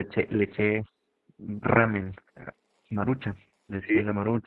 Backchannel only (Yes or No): Yes